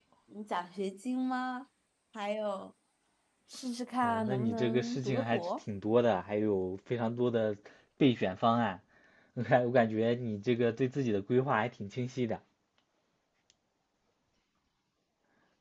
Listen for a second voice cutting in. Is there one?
Yes, from 4.0 s

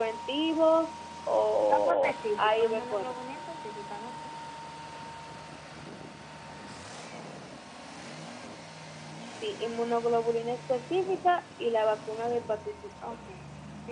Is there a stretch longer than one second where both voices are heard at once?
Yes, from 1.7 s

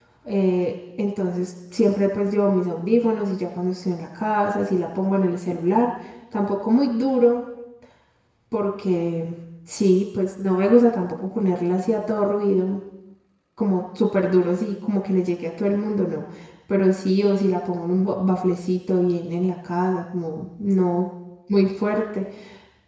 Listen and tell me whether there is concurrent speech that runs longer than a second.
No

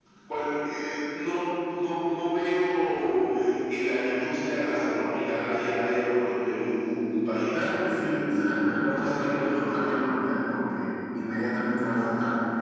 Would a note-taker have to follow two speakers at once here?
Yes, from 7.5 s

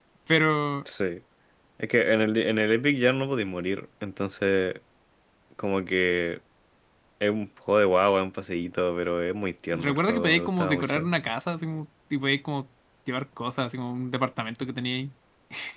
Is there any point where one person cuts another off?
Yes, from 9.7 s

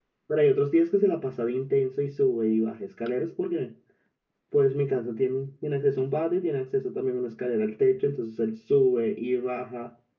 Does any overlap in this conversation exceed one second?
No

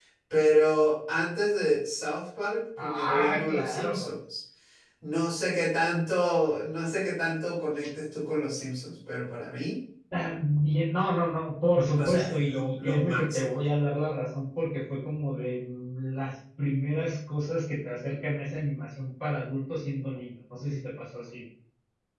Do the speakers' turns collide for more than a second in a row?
Yes, from 2.8 s

